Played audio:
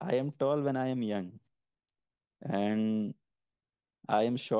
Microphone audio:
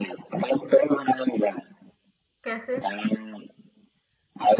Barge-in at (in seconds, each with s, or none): 2.4 s